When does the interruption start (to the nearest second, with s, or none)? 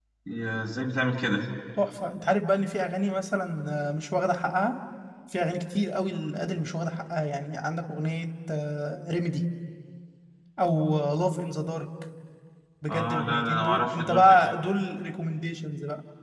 13 s